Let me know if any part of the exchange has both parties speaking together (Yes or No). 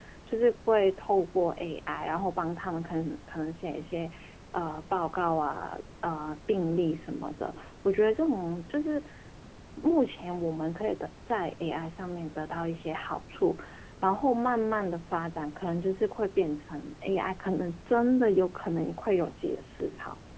No